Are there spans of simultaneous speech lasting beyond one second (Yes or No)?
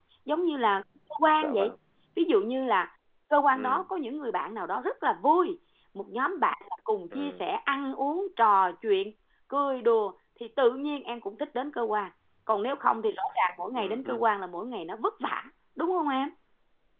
No